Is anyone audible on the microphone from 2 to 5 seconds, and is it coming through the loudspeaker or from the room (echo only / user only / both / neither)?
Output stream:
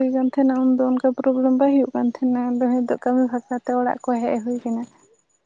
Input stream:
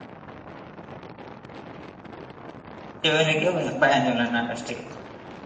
user only